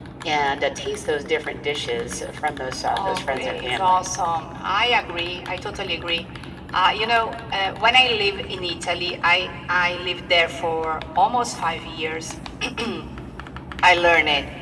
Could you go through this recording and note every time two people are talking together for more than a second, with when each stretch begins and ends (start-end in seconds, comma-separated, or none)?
2.9-4.1